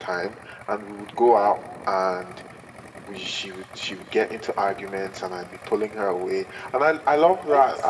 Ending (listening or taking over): listening